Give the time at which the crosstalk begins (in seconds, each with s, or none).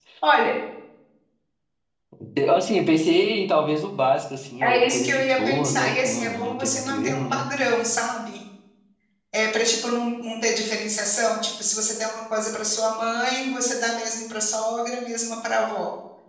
4.6 s